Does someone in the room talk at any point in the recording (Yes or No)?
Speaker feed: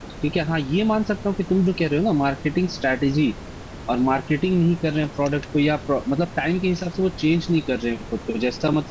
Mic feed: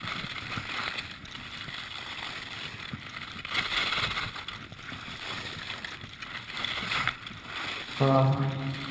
Yes